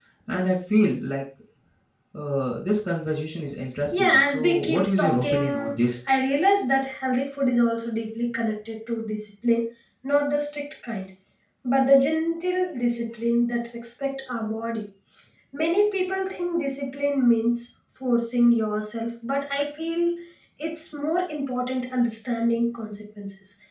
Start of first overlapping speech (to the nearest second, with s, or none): 4 s